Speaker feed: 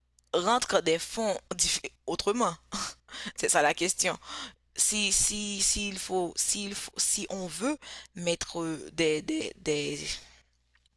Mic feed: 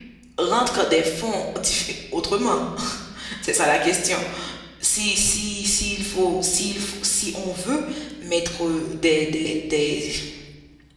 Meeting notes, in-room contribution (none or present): none